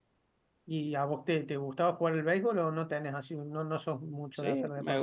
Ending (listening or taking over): taking over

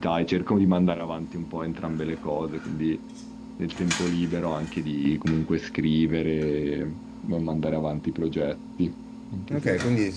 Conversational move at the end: taking over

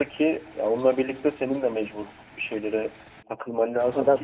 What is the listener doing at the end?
listening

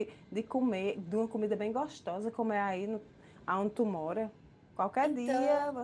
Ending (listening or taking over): listening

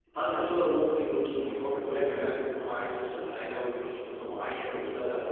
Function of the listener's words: listening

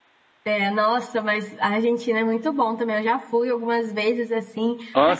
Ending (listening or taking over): listening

